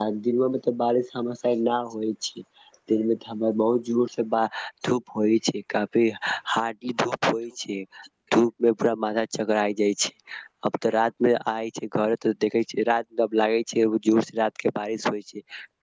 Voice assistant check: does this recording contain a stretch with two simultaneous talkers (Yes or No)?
No